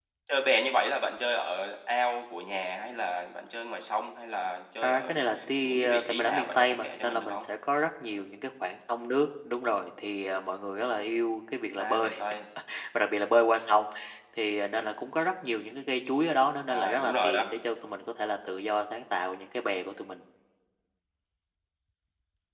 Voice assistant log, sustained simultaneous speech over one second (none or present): present